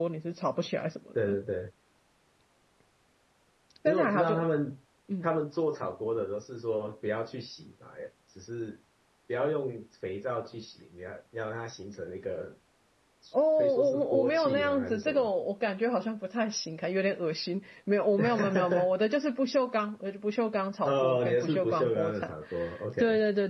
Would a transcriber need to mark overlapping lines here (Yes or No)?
Yes